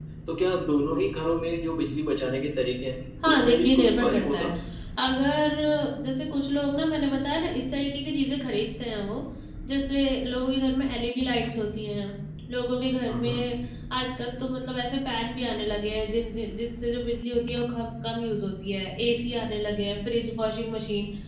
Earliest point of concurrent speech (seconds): 3.2 s

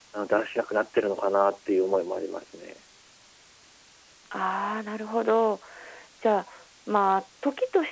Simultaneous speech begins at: none

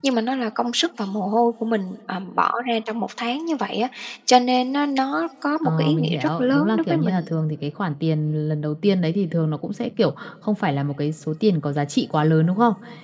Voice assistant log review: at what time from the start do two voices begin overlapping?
5.6 s

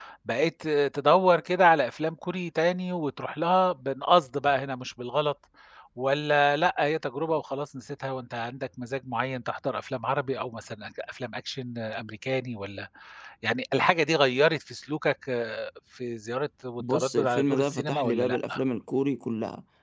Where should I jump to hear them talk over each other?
16.8 s

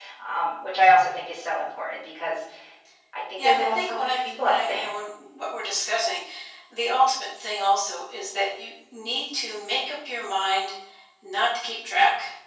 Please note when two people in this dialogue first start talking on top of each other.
3.4 s

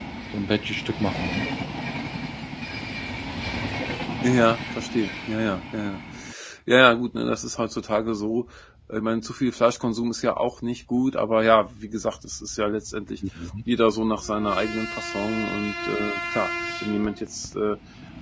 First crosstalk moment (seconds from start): none

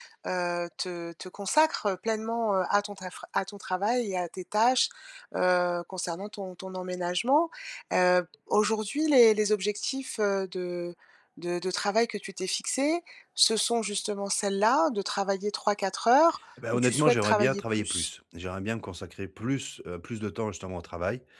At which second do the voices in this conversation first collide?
16.6 s

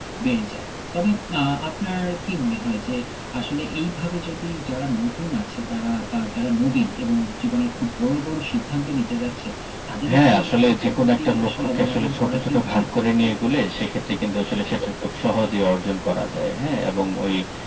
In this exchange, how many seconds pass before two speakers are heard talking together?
10.1 s

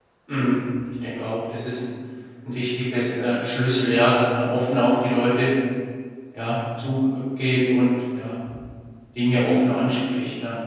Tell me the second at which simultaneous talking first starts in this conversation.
none

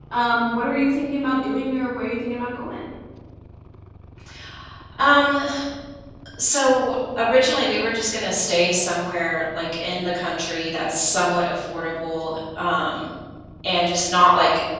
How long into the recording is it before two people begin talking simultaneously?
none

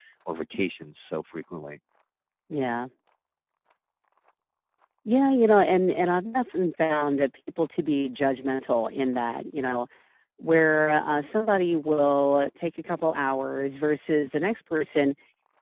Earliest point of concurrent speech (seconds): none

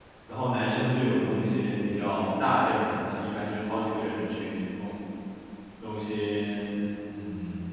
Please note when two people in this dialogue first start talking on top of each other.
none

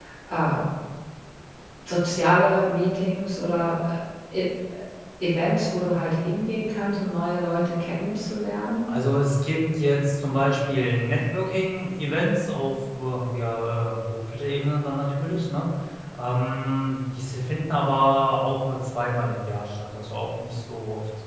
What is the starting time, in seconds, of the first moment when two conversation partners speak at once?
none

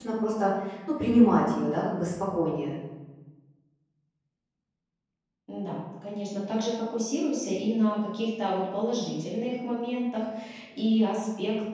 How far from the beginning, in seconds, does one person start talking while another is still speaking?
none

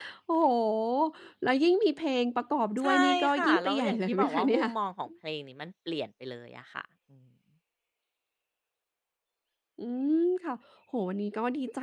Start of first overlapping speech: 2.8 s

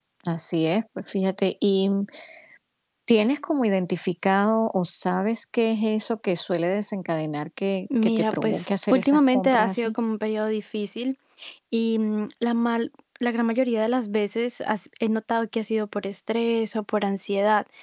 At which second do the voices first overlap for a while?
7.9 s

